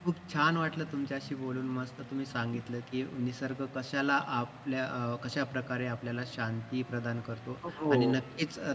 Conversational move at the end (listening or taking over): listening